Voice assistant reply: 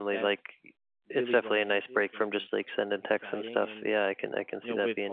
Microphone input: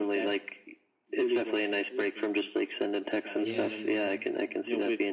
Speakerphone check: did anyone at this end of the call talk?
Yes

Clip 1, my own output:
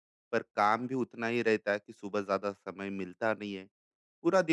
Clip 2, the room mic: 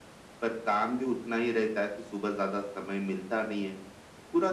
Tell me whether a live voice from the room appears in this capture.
No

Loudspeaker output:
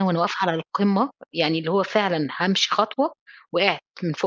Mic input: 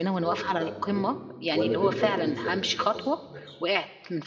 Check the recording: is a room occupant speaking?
Yes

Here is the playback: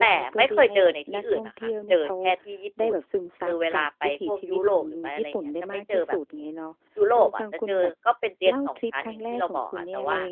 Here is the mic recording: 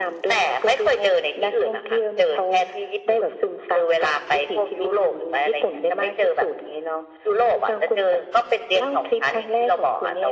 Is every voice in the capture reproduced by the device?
Yes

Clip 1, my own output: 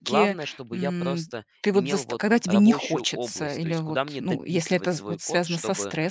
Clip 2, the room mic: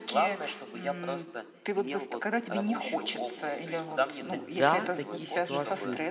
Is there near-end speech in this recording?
Yes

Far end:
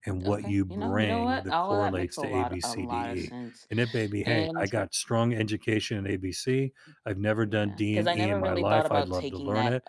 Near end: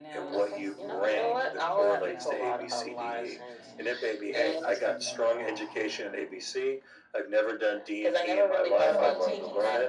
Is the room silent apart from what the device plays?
No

